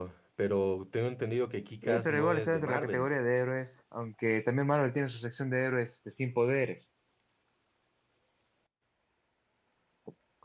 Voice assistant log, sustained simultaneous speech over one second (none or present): present